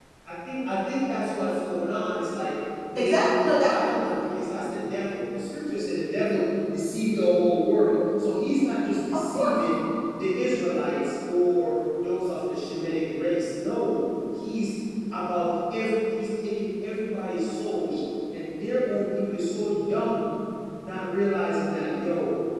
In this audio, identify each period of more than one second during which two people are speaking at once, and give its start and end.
3.0-4.2

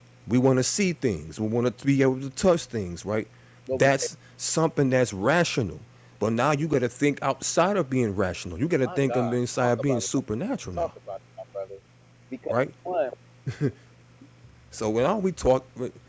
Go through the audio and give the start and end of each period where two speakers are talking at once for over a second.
8.8-10.1

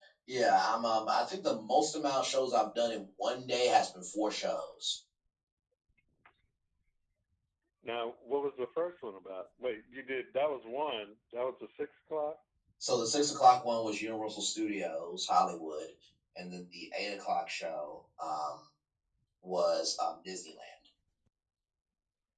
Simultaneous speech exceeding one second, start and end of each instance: none

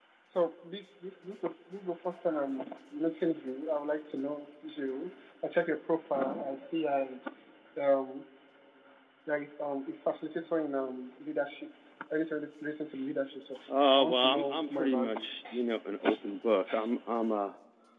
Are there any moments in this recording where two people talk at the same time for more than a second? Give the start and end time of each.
14.0-15.3

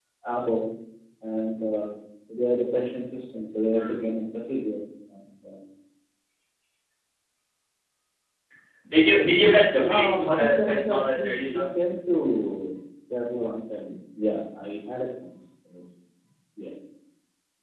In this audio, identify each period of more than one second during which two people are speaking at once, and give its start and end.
9.7-11.7

